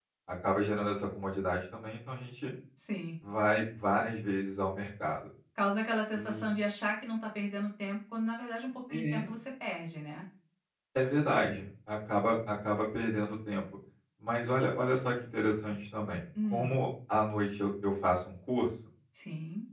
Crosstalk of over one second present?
No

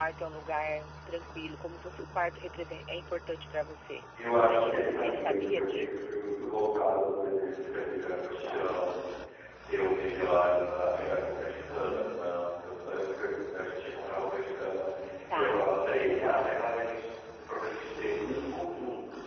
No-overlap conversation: No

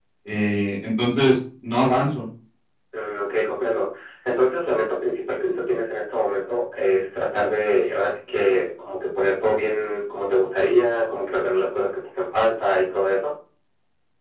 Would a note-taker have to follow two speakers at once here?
No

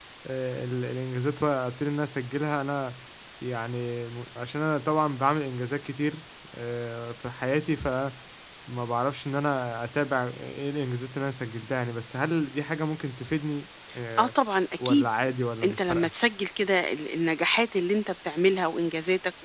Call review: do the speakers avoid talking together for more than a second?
Yes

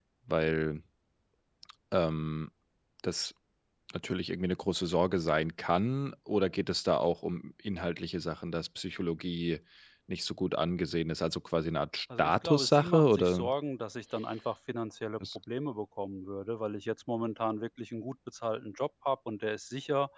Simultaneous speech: Yes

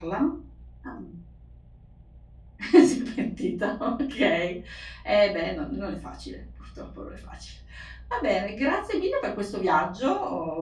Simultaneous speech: No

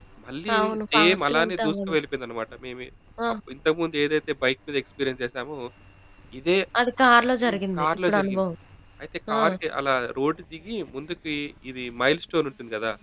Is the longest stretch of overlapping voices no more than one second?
No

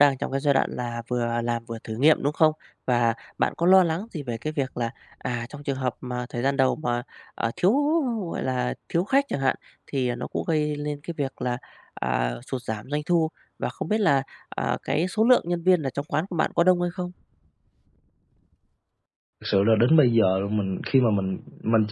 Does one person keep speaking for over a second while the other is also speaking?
No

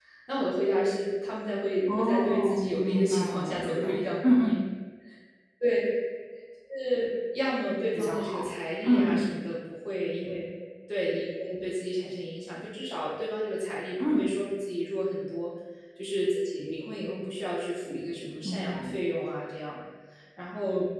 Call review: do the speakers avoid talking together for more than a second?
No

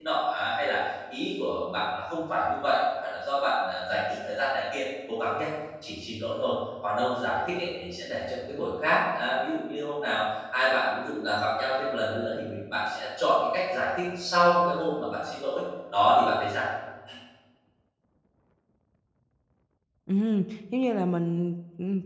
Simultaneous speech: No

